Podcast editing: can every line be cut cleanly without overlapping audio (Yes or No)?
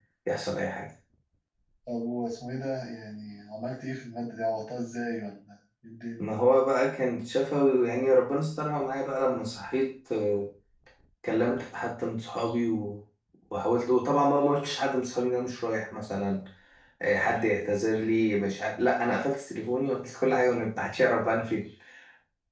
Yes